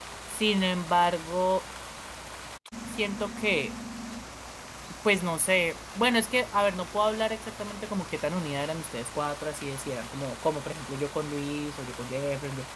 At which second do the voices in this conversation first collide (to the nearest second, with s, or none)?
none